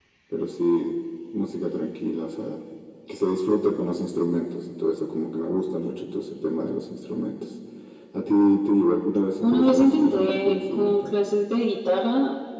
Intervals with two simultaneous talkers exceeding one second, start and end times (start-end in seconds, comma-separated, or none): 9.4-11.1